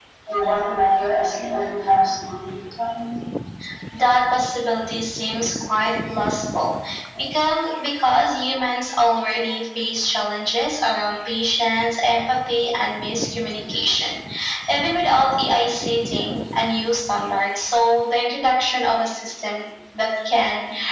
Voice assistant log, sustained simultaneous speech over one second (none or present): none